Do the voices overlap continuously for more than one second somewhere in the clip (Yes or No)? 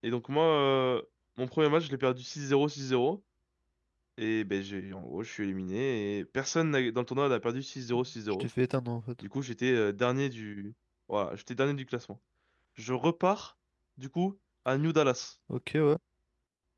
No